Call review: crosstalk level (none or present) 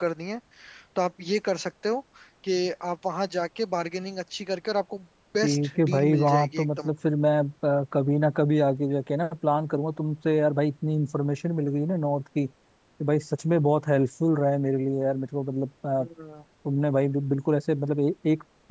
present